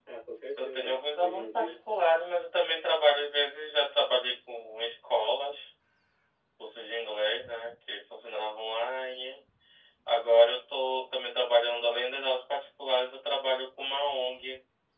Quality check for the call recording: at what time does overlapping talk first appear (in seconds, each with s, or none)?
0.6 s